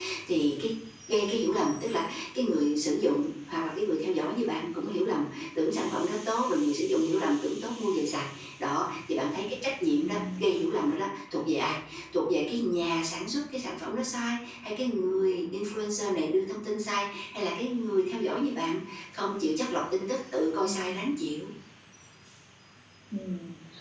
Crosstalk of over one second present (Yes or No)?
No